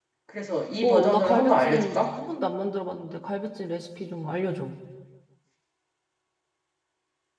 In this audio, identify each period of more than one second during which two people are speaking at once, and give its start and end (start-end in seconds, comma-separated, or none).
0.8-2.1